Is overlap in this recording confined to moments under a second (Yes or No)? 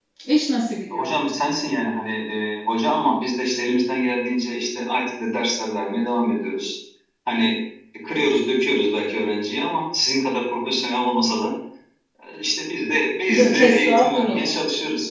No